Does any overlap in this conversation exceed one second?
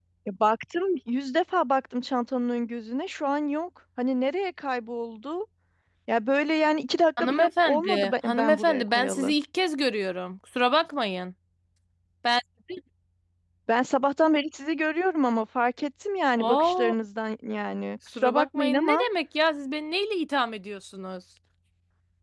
Yes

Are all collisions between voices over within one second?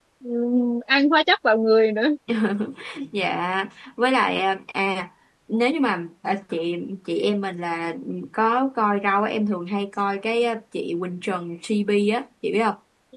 Yes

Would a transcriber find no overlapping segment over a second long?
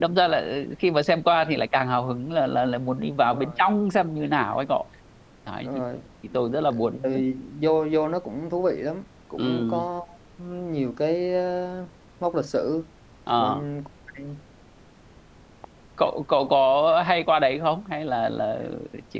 Yes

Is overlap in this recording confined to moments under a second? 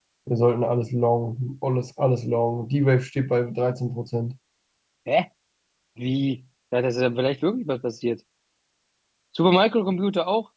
Yes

